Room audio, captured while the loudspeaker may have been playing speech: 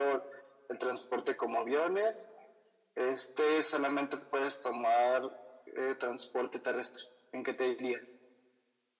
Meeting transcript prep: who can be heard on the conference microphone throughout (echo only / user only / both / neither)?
echo only